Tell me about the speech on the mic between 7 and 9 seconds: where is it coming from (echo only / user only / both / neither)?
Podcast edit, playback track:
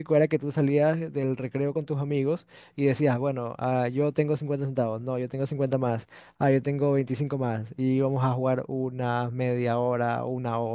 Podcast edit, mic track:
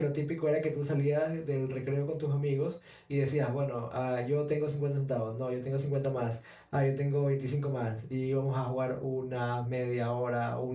echo only